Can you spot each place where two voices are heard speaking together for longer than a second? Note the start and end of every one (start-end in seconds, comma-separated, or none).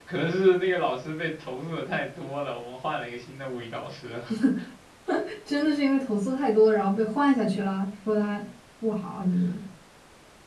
none